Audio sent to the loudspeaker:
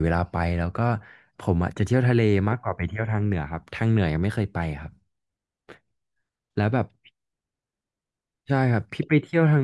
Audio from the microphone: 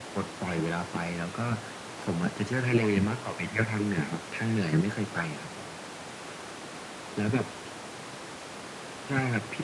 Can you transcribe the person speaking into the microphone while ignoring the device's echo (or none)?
none